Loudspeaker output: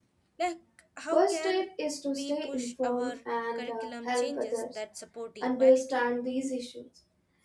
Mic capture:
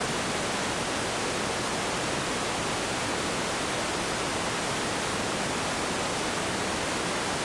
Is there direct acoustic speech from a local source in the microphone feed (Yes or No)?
No